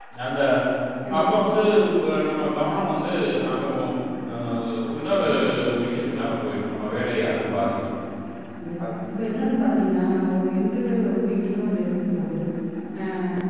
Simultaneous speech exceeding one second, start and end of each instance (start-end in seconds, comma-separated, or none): none